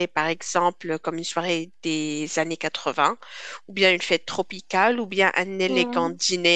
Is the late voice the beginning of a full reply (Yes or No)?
No